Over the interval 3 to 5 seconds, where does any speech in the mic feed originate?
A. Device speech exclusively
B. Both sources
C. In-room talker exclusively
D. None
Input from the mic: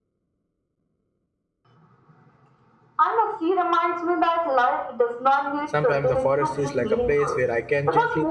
A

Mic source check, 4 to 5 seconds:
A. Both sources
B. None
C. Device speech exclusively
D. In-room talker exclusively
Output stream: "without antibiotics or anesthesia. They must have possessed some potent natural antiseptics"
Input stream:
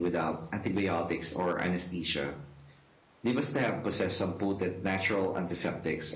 C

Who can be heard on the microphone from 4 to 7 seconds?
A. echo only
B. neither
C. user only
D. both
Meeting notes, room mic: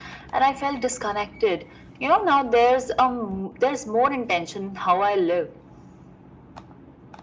A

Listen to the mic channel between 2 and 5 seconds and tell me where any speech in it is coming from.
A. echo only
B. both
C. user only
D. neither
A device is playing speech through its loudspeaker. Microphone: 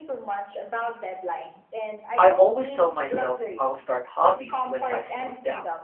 B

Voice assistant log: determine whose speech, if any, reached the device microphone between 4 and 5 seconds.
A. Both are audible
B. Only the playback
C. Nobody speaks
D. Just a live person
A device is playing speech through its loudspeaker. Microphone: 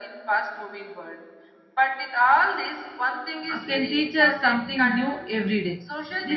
A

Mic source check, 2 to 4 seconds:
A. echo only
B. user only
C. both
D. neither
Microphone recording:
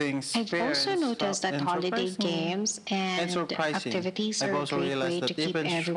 A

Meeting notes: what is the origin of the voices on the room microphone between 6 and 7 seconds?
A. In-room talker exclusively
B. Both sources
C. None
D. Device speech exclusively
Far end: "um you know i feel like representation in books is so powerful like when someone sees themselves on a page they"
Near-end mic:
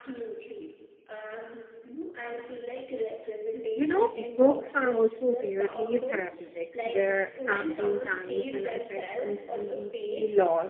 B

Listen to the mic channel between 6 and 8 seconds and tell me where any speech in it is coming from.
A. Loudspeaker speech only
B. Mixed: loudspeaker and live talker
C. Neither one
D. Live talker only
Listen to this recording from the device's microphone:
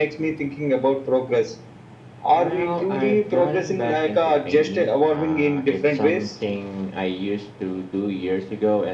A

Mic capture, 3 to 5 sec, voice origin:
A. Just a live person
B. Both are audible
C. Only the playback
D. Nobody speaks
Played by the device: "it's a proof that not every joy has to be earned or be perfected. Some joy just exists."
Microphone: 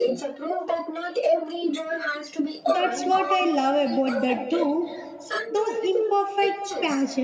B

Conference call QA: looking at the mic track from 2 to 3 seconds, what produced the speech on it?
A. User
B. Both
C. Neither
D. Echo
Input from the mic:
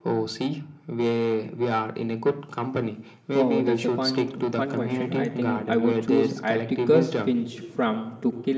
D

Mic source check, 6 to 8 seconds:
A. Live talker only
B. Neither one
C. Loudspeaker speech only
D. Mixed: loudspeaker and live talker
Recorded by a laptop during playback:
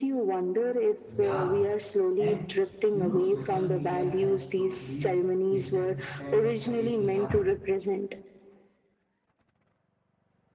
D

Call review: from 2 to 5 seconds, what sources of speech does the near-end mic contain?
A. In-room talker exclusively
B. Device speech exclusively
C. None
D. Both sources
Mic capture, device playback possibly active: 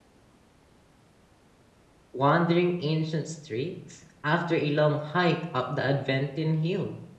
A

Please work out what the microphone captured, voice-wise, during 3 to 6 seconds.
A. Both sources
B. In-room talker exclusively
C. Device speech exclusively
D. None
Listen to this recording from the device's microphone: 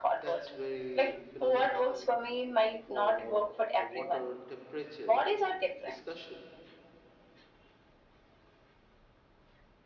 A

